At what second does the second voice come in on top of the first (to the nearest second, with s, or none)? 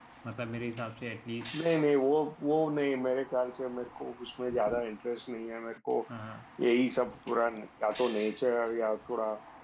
none